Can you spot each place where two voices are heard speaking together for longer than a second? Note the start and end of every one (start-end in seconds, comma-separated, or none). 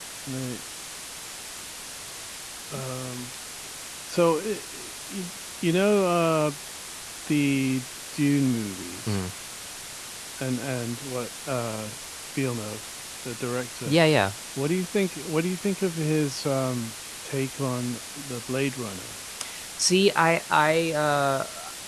none